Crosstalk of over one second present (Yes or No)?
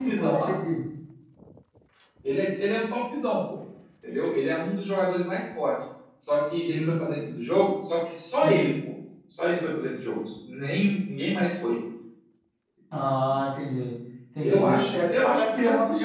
Yes